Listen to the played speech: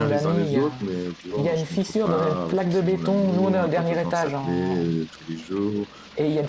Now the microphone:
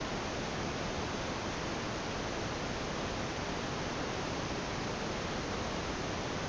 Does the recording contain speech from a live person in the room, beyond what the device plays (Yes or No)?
No